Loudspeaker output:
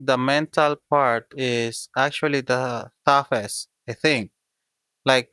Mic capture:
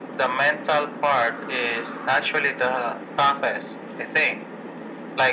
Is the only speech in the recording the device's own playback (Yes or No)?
Yes